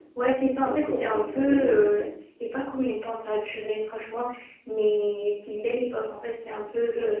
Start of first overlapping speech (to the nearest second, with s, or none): 1 s